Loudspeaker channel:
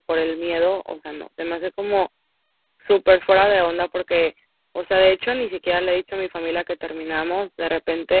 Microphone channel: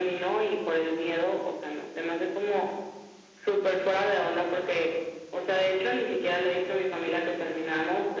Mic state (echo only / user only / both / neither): echo only